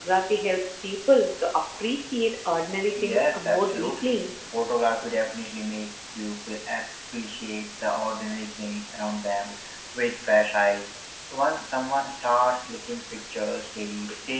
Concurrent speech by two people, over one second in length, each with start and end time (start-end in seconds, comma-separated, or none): 2.9-4.3